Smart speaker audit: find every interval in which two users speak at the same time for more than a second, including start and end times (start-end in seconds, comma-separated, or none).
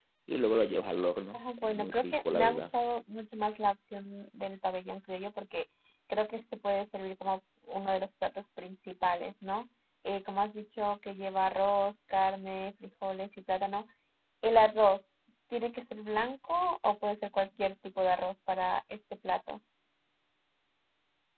1.3-2.7